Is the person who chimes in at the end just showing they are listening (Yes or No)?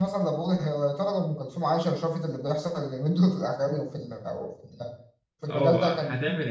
No